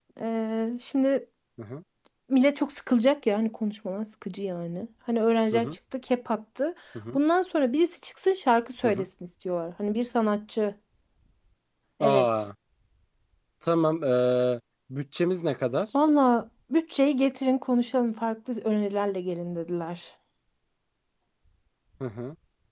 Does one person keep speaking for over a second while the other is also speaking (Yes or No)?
No